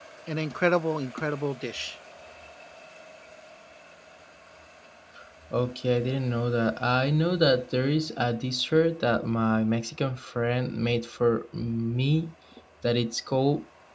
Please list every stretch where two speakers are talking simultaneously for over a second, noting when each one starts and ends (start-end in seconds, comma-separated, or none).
none